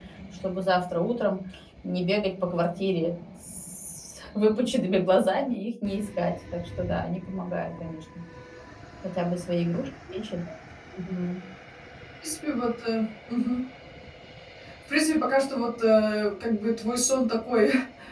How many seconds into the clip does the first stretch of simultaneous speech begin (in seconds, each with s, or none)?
none